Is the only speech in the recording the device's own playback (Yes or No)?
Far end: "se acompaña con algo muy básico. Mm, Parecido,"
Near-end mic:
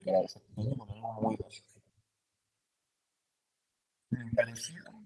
Yes